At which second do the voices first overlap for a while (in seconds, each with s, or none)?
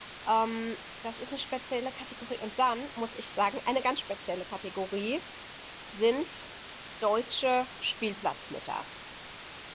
none